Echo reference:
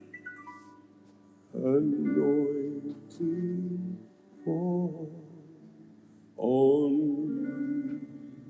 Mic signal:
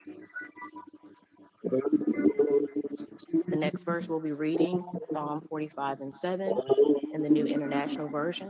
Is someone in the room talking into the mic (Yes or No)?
Yes